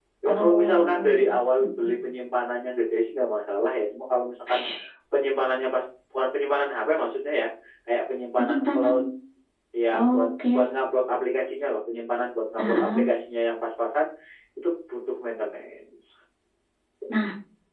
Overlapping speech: Yes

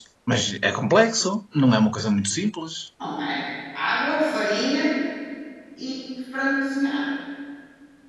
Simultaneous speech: No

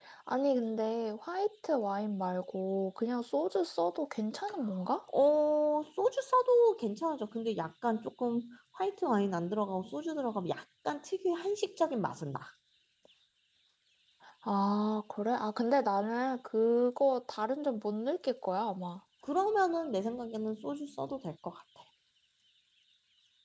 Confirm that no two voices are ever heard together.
Yes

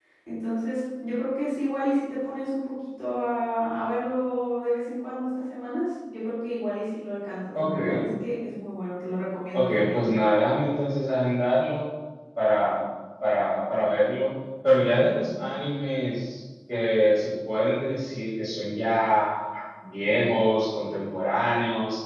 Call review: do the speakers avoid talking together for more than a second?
Yes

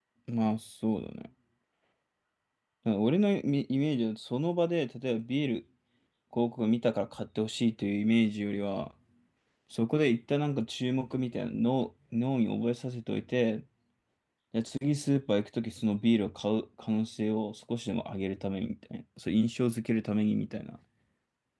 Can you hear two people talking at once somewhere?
No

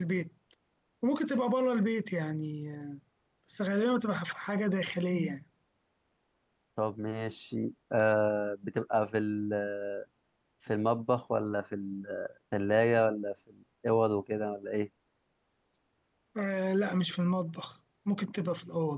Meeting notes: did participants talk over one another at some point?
No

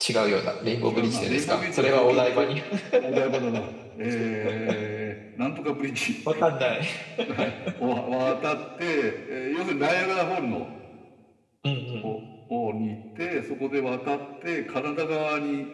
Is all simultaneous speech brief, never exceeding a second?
No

